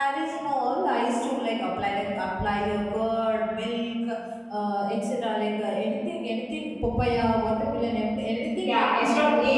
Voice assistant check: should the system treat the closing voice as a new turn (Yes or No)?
Yes